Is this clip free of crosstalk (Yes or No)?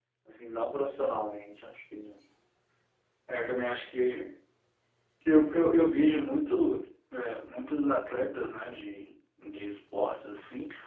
Yes